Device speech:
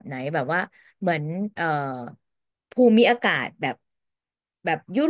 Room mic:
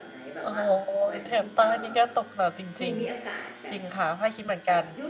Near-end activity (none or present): present